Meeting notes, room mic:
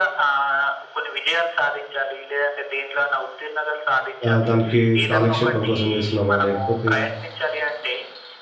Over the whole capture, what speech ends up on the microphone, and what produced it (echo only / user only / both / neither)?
both